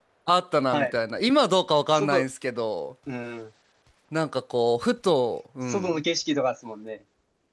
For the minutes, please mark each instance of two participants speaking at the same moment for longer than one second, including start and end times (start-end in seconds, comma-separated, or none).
none